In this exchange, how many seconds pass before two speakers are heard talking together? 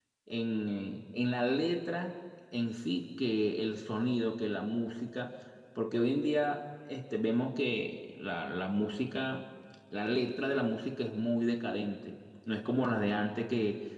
none

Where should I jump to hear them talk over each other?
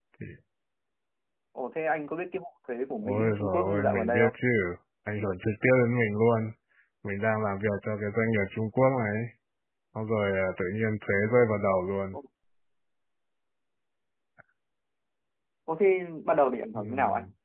3.0 s

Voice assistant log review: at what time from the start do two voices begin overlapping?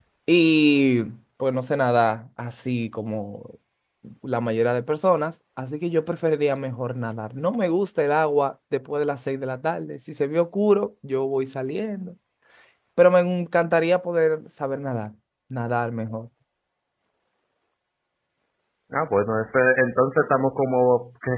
none

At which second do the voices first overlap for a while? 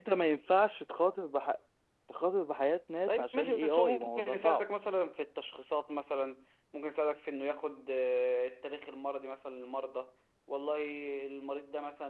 3.1 s

